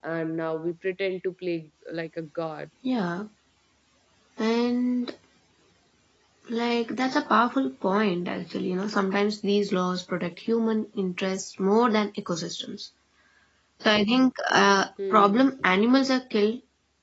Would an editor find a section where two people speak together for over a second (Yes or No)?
No